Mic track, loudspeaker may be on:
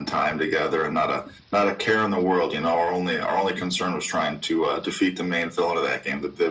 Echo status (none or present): present